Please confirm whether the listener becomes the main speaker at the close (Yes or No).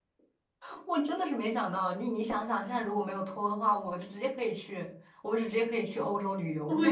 Yes